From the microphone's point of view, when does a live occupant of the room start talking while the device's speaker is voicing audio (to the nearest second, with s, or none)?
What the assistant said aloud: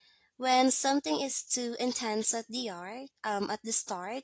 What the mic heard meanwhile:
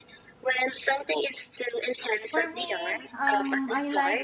2 s